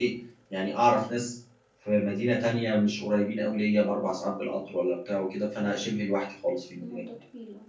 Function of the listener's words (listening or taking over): taking over